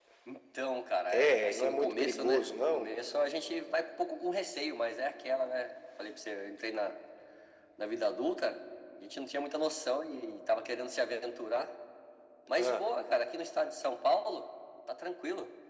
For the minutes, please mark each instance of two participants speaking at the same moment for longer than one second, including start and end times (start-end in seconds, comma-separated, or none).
1.1-2.9